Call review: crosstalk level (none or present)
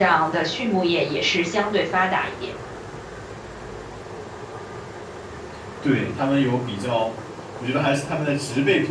none